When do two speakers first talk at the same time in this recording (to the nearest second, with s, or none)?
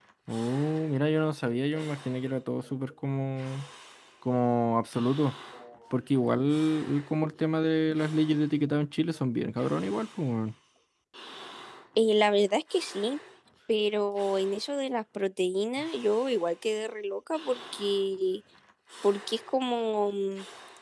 none